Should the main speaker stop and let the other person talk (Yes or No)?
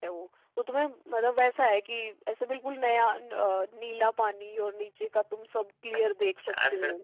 Yes